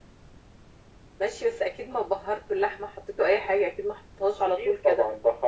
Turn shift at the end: Yes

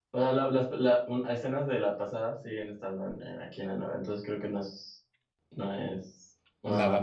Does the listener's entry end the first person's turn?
No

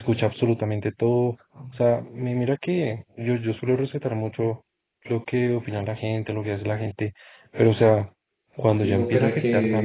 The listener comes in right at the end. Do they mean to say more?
Yes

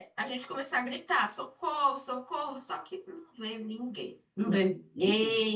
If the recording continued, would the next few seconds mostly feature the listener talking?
No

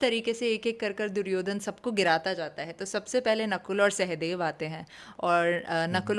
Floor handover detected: No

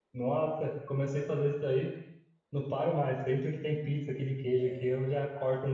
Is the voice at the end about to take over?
No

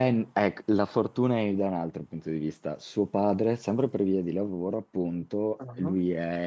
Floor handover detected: No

